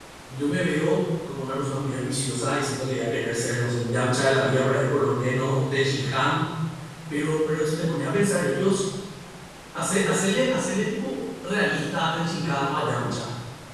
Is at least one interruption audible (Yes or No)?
No